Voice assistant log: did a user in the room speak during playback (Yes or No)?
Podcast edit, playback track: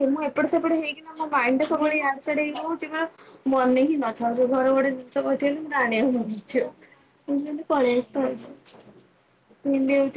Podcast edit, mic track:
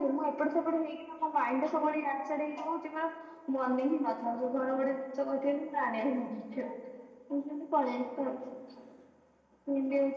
No